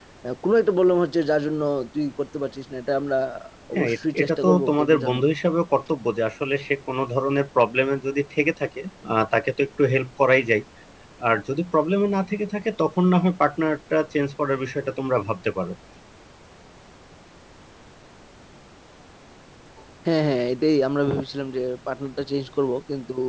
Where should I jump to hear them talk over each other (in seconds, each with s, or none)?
3.8 s